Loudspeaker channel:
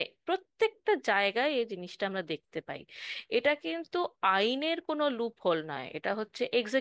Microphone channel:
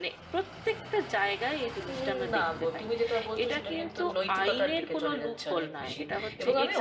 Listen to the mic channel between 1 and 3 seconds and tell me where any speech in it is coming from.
both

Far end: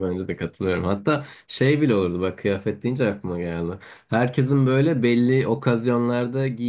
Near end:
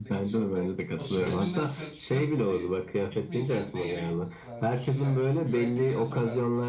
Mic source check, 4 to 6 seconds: both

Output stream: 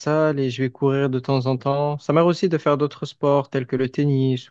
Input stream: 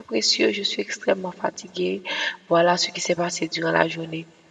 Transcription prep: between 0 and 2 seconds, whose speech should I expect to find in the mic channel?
user only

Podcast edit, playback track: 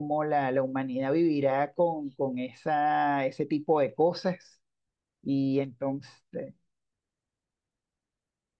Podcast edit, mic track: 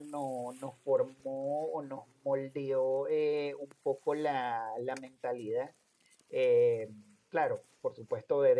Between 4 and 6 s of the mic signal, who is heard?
user only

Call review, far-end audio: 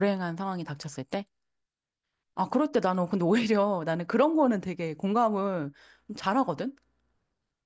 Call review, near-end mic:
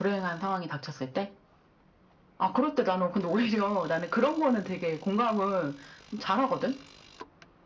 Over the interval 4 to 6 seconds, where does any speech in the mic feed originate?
echo only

